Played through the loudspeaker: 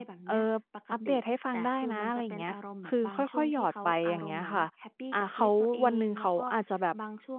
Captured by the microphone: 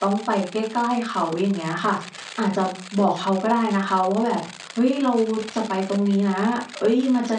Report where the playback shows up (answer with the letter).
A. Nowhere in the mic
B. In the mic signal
A